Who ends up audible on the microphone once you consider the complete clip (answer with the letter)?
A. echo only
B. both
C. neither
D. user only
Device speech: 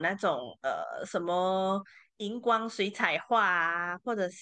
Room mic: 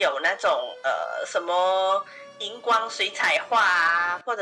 A